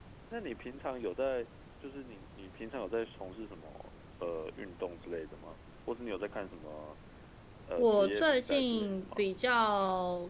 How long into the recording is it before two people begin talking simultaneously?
8 s

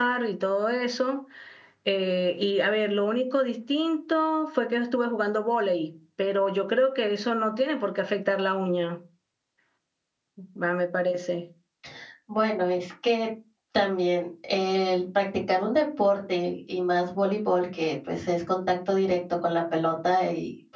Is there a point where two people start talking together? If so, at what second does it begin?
none

